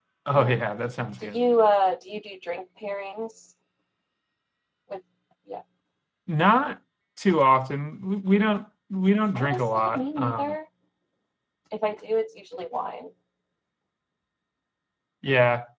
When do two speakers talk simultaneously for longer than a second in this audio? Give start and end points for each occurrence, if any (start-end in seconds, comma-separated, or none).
9.3-10.6